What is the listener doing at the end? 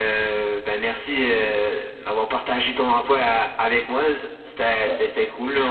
listening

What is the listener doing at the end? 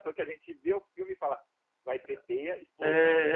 taking over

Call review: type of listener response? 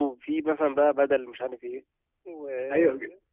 taking over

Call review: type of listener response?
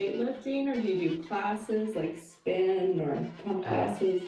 taking over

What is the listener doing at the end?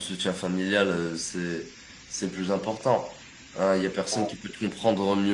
listening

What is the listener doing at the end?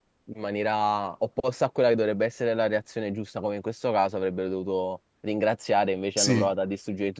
listening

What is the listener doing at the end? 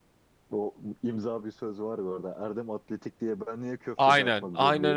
taking over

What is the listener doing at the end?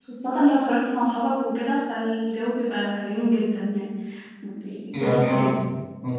taking over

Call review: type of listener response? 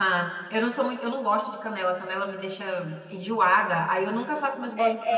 taking over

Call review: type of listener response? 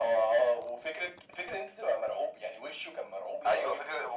taking over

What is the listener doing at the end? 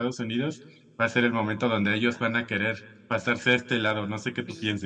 taking over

